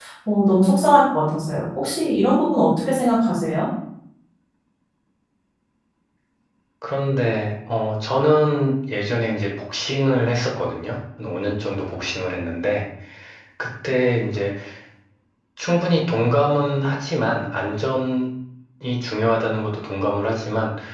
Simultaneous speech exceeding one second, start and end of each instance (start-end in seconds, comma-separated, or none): none